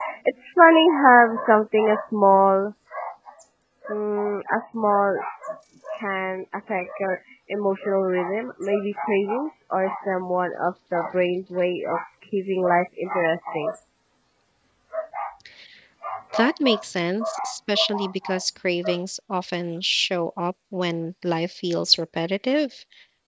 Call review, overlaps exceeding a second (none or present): none